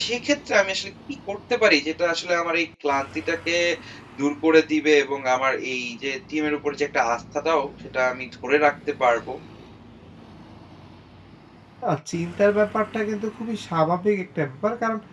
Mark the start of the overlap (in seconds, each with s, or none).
none